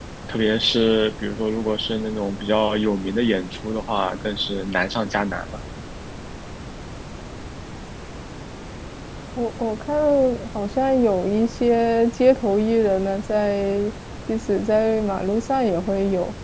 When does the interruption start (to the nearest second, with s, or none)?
none